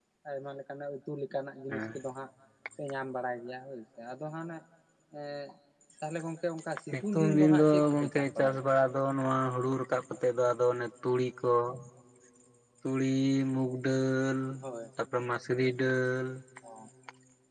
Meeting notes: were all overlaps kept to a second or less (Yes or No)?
No